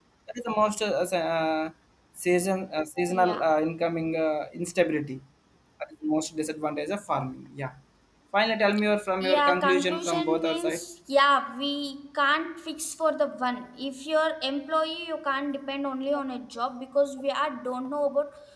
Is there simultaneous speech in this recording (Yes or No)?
Yes